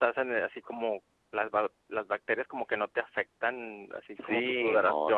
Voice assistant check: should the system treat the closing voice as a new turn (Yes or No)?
Yes